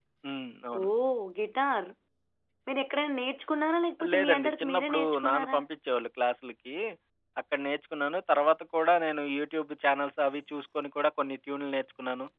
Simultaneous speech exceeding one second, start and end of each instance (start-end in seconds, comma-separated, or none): 4.1-5.6